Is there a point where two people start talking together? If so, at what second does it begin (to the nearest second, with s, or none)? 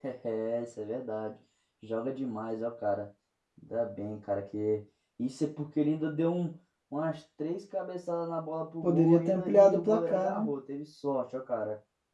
9 s